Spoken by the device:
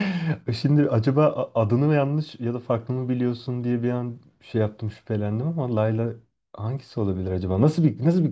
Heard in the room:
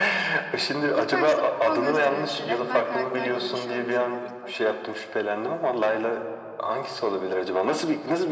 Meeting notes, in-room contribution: present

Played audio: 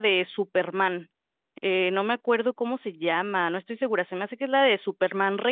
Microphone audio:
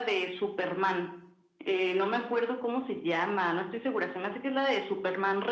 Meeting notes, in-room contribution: none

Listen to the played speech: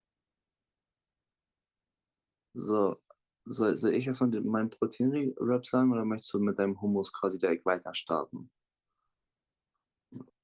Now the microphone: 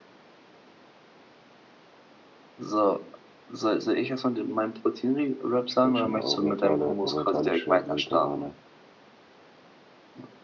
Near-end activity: present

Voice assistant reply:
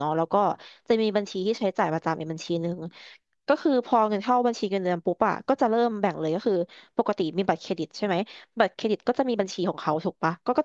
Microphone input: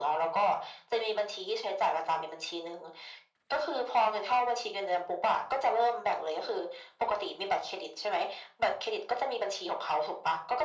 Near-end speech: none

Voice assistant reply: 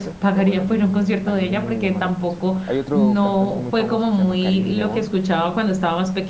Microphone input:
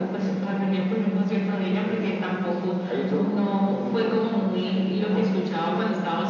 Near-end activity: none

